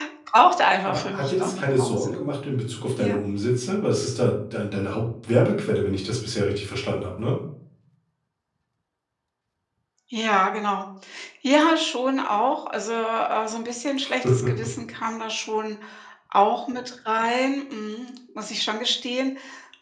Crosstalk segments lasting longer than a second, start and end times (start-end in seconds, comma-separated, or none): 0.8-2.1